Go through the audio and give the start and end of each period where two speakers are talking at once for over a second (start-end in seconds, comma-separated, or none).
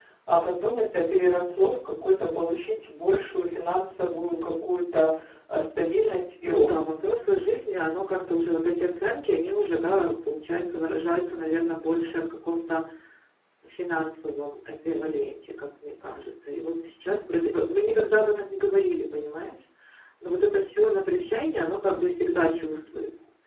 none